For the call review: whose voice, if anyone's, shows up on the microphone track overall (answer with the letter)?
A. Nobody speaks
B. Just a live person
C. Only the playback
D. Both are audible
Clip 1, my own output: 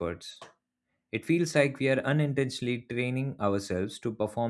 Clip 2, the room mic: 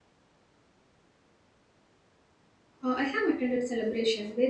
B